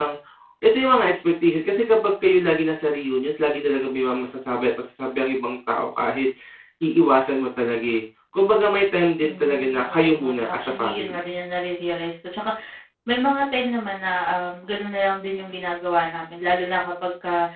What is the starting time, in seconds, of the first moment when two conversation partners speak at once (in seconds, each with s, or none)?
9.2 s